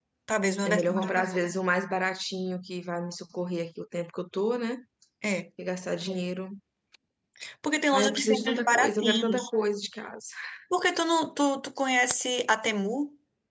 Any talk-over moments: Yes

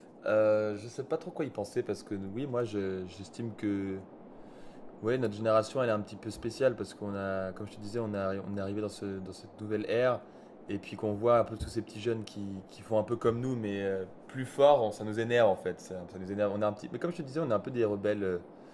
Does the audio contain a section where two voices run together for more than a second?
No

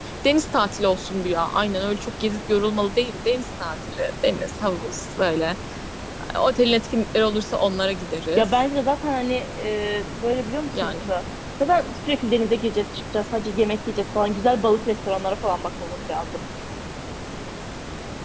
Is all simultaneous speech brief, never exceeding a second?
Yes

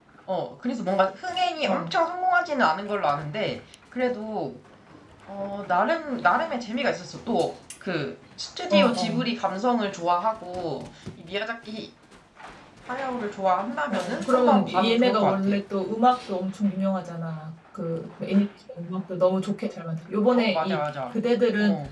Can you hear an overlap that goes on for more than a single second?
Yes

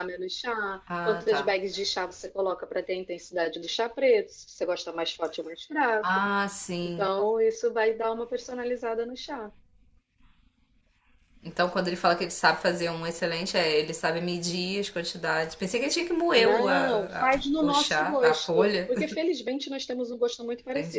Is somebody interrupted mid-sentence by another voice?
Yes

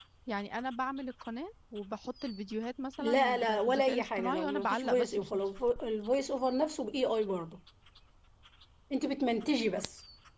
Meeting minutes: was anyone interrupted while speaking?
Yes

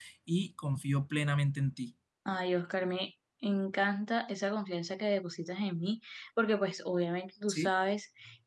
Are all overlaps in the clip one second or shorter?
Yes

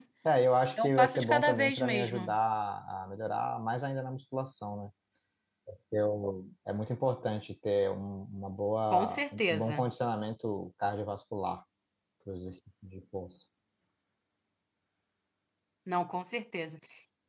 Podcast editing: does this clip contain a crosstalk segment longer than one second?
Yes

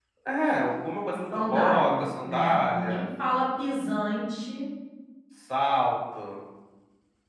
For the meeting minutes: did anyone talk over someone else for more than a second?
Yes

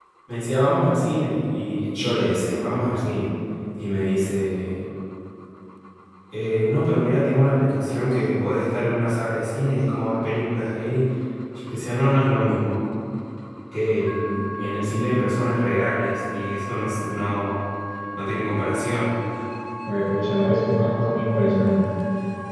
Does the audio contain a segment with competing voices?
No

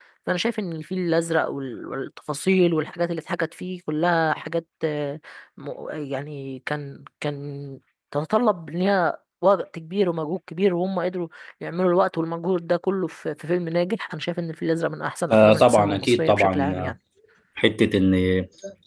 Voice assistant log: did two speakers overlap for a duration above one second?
Yes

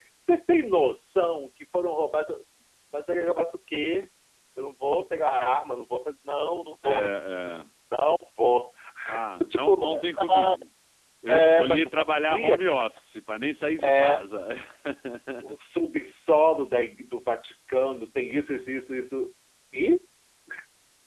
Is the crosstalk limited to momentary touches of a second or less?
No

